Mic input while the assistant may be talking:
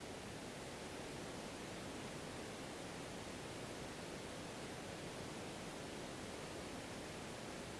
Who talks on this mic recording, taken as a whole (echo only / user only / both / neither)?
neither